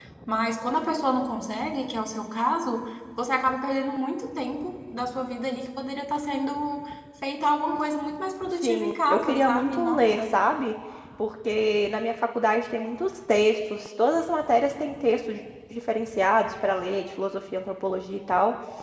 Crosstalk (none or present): present